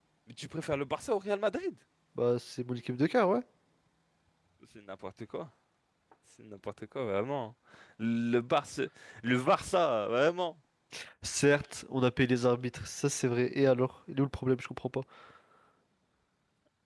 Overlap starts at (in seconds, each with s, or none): none